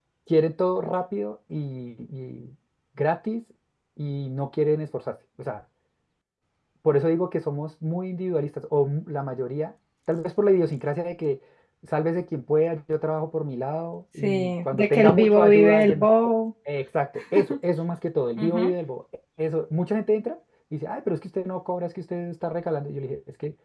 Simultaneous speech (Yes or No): Yes